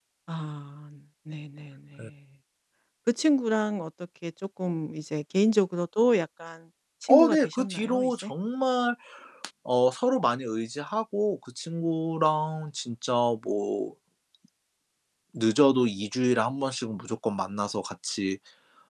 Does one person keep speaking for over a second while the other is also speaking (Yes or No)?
Yes